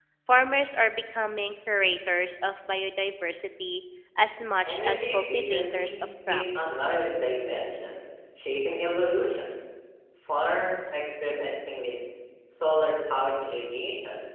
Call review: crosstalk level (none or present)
present